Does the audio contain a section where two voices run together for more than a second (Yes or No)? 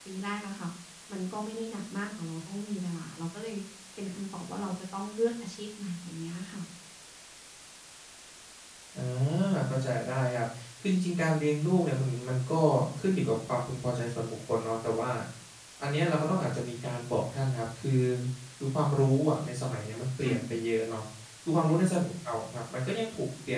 No